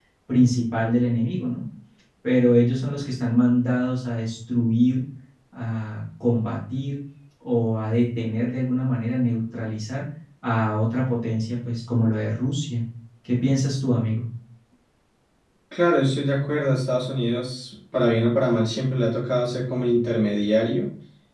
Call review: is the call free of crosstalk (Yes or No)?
Yes